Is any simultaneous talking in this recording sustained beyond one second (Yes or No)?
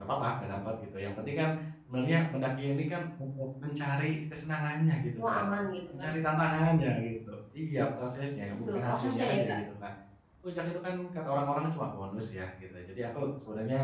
Yes